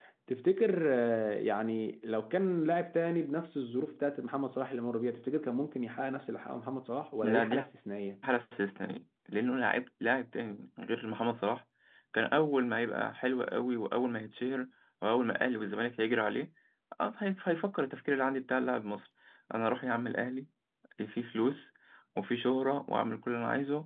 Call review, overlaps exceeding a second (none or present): none